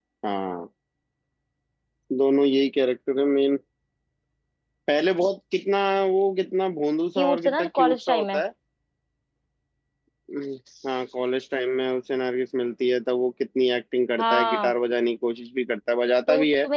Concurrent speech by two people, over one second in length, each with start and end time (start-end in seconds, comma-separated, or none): 7.2-8.4